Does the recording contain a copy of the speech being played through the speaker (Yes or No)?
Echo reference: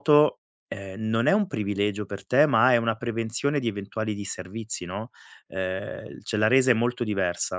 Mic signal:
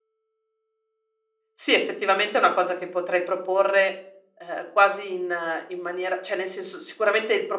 No